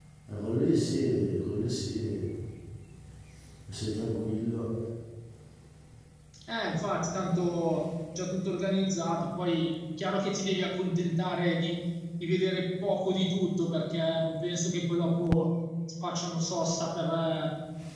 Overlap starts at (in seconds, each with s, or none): none